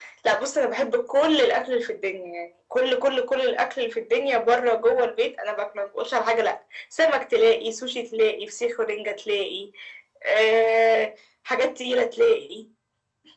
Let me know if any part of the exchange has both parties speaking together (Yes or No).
No